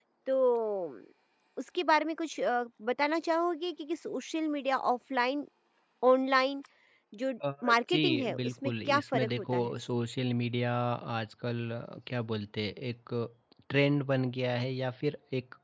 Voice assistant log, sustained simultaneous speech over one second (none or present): present